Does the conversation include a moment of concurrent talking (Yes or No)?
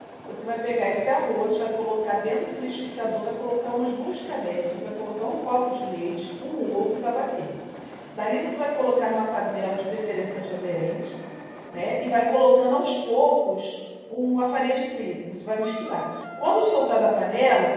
No